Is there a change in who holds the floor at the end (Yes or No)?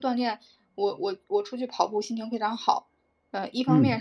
No